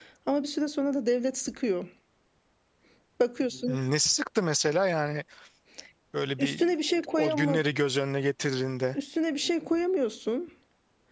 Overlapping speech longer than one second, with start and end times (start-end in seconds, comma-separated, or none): none